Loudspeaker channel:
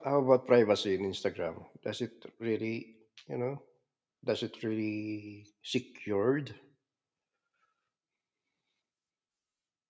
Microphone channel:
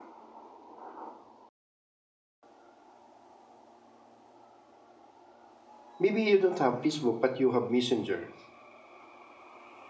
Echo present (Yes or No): No